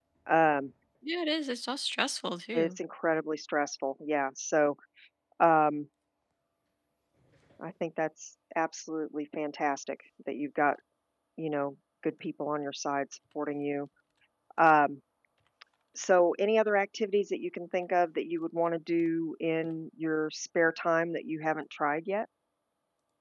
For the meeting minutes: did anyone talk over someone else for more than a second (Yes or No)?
No